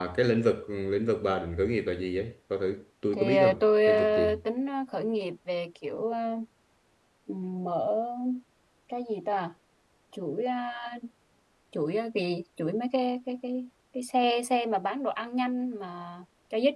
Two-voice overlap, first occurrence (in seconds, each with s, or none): 3.1 s